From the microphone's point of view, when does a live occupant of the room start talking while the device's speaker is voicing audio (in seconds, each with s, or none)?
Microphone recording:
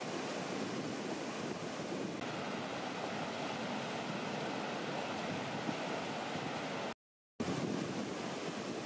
none